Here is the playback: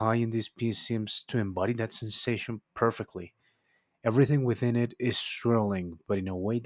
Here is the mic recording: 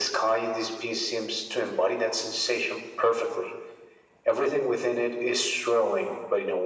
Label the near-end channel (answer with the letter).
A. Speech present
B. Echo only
B